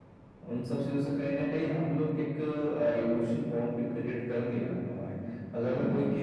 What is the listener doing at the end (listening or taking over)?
listening